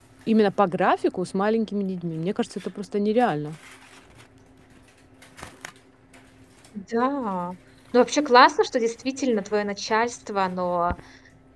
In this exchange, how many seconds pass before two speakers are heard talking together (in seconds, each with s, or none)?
none